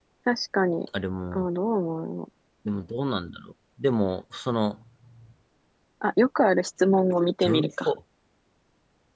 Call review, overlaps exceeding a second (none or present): none